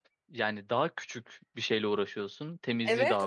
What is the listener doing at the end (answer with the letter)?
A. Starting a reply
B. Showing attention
A